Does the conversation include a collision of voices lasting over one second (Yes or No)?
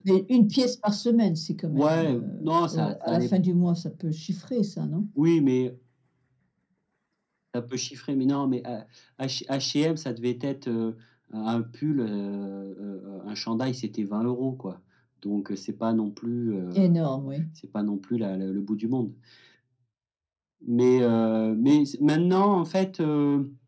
Yes